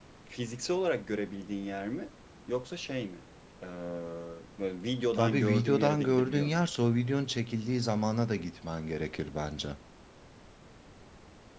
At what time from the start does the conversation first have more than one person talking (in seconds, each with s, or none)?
5.2 s